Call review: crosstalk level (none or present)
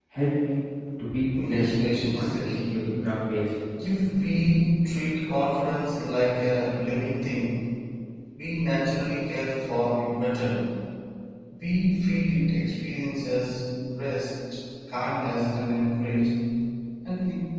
present